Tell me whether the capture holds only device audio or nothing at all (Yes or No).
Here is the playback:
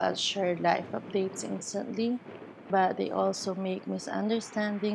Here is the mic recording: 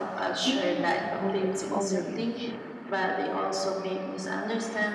No